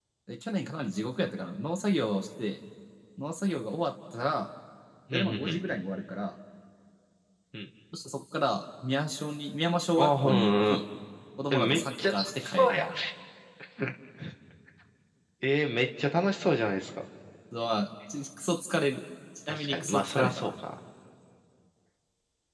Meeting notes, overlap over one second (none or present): present